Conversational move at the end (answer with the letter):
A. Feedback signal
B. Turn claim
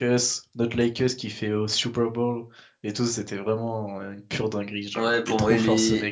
B